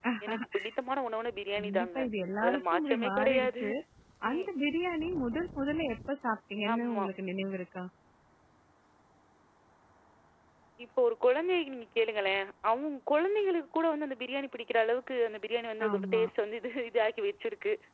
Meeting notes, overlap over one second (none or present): present